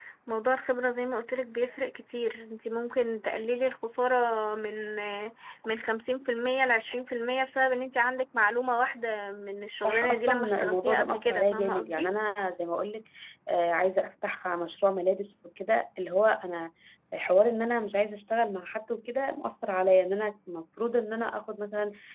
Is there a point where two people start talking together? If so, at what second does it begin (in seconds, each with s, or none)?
9.8 s